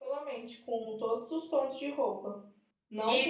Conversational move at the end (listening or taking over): taking over